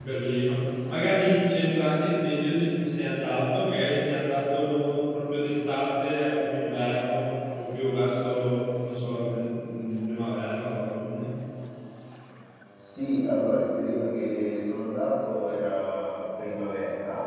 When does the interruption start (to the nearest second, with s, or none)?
none